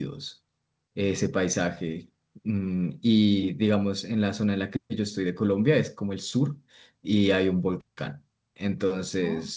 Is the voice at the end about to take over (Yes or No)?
No